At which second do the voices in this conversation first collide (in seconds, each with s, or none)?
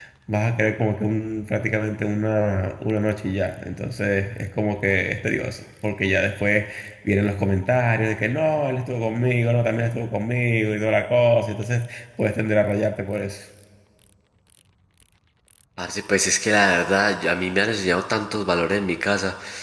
none